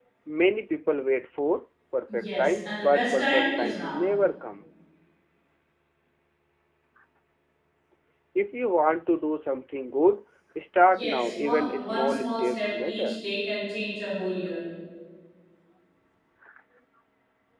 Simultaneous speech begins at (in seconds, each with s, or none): 2.1 s